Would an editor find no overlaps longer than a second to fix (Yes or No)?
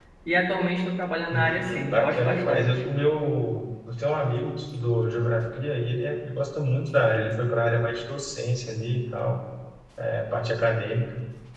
No